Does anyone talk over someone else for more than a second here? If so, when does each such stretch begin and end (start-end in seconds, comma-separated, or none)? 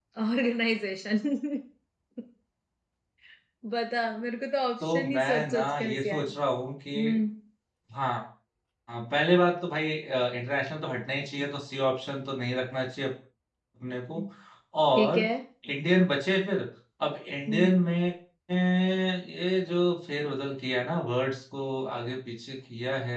4.9-6.3